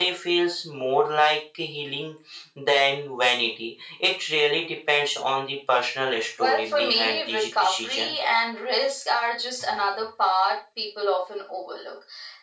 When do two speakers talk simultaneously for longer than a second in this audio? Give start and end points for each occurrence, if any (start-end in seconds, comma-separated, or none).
6.4-8.2